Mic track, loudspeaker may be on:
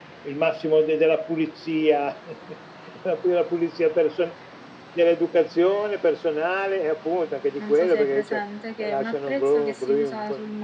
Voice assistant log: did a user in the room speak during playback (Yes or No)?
Yes